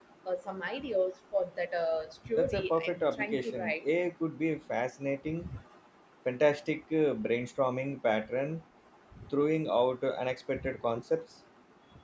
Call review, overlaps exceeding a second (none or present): present